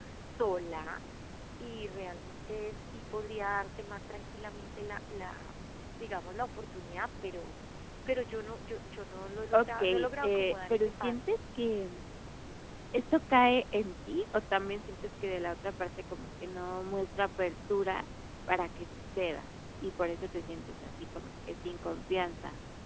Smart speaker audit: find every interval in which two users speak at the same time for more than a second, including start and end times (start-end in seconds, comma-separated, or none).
9.5-11.3